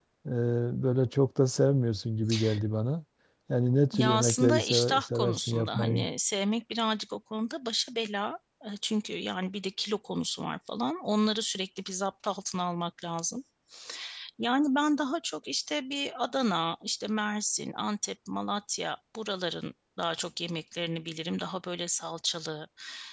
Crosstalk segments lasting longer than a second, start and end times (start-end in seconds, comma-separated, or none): 3.9-6.0